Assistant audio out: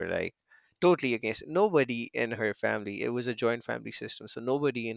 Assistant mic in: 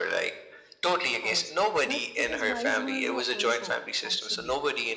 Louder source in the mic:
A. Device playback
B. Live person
A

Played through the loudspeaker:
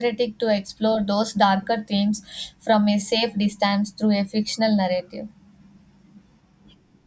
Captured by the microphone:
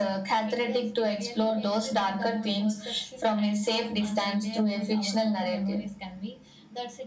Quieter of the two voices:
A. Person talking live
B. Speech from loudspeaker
A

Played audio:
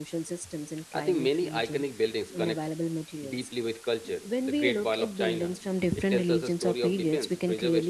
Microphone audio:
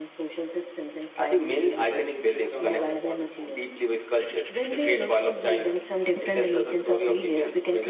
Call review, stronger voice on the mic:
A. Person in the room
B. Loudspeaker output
B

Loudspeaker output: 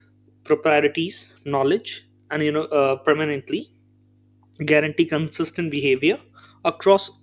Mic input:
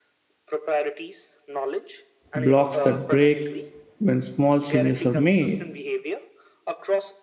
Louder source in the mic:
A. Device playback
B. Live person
B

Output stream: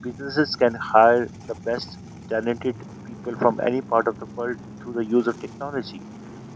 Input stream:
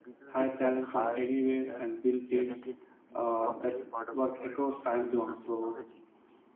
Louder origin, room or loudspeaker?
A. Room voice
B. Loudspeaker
A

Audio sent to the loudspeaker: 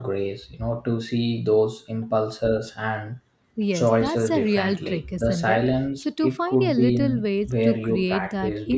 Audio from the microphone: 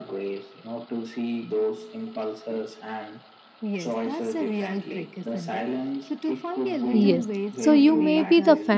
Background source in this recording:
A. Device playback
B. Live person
A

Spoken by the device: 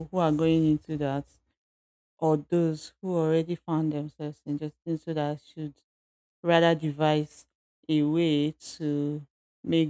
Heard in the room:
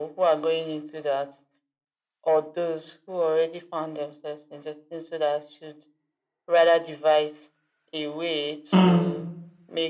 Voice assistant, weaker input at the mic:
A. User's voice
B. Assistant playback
B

